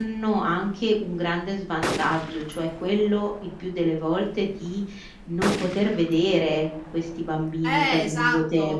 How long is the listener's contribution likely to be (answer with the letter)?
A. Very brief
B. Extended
B